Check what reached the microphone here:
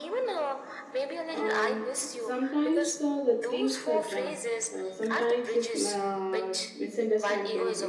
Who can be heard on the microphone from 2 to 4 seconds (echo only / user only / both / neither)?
both